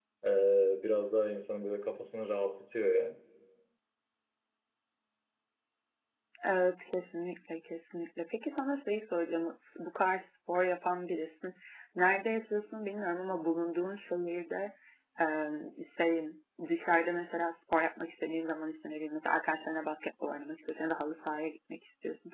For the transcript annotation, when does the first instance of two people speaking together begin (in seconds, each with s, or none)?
none